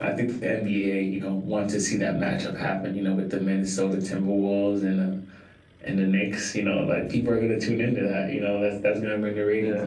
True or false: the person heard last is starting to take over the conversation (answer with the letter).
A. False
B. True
B